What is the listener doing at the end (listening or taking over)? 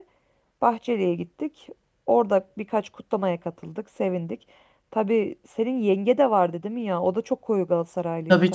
taking over